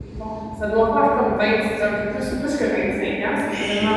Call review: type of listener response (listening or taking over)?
taking over